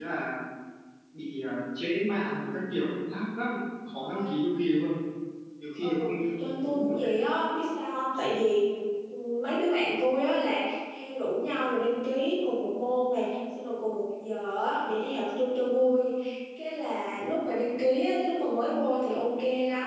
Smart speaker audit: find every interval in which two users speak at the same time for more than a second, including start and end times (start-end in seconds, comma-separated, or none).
5.8-7.1